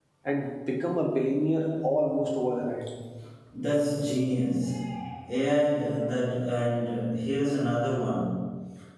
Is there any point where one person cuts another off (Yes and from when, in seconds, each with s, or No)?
No